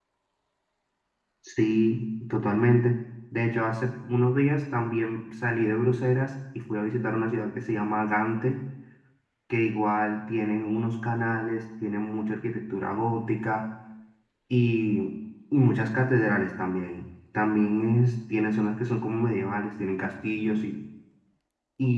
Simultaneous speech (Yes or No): No